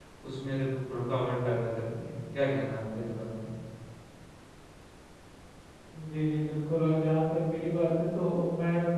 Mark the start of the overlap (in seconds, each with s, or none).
none